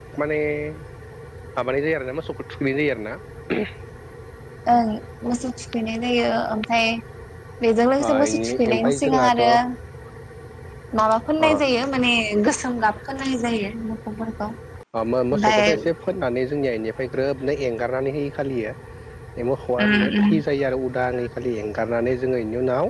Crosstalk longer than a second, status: present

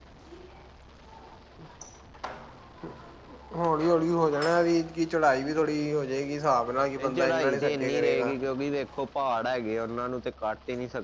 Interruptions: present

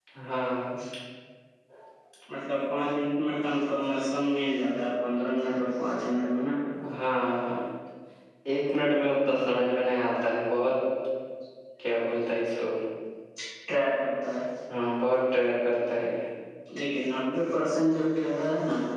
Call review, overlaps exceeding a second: none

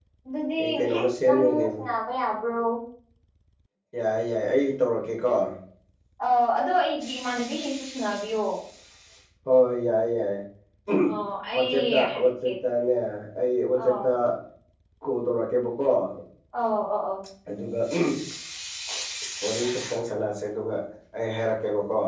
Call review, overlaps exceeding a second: present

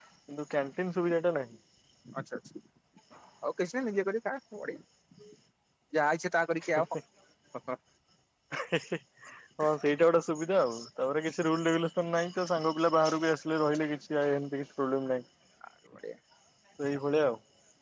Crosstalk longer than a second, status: none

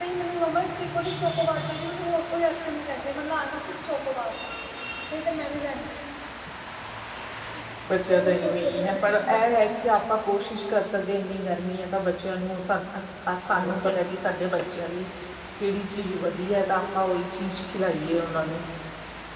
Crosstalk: present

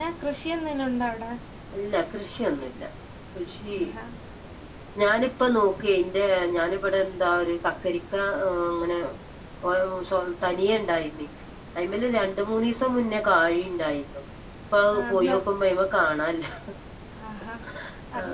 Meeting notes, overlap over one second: none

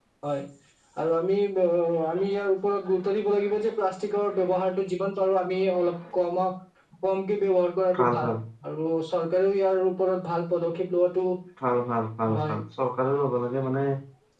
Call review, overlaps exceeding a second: none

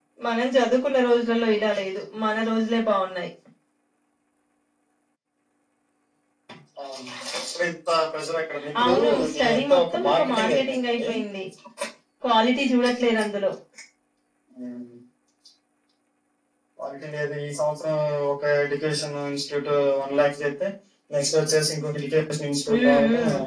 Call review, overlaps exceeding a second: present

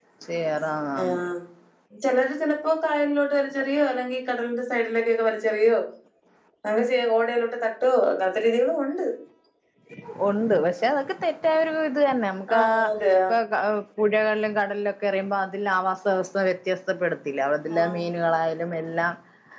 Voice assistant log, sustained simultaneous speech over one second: none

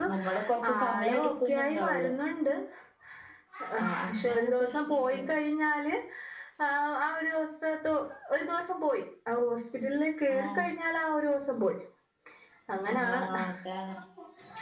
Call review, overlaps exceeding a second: present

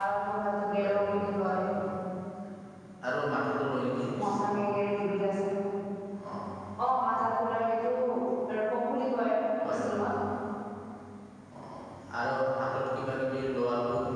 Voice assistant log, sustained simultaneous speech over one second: none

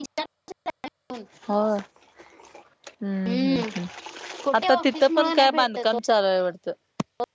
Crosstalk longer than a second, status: present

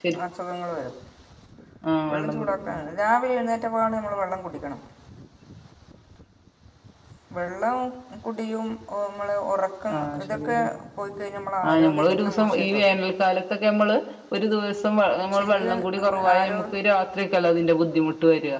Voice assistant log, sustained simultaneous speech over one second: present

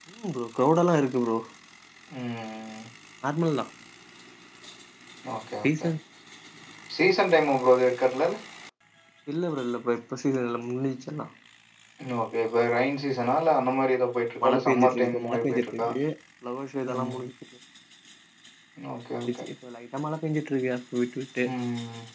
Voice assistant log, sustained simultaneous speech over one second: present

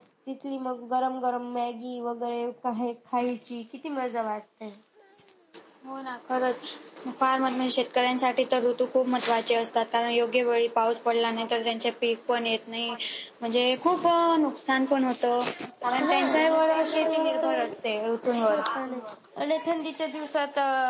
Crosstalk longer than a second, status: present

